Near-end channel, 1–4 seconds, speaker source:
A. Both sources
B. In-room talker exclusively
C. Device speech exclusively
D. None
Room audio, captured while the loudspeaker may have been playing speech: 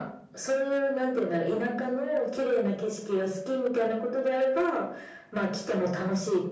C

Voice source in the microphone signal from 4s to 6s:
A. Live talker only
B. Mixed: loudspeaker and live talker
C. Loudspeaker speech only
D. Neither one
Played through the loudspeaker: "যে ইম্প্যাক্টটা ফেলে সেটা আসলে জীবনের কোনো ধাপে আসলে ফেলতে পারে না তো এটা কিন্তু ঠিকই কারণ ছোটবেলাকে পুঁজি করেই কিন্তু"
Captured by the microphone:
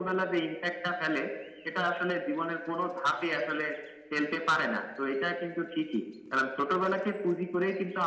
C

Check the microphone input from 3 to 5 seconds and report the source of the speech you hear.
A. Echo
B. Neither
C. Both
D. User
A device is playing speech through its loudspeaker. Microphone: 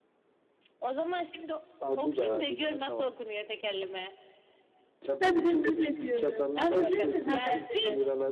A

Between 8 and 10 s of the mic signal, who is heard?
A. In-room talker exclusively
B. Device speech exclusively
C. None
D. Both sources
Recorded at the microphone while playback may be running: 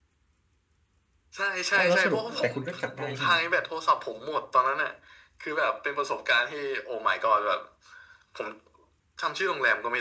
B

